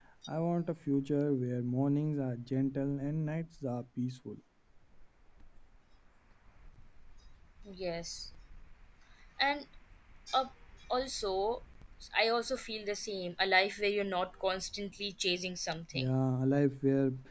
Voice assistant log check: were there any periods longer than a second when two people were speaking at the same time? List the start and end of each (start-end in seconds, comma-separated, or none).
none